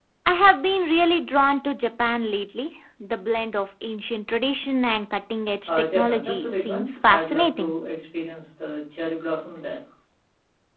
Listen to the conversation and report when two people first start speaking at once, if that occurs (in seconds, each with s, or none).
5.7 s